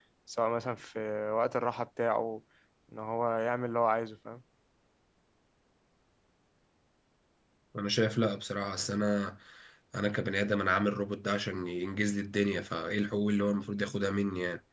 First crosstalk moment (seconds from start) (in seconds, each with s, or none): none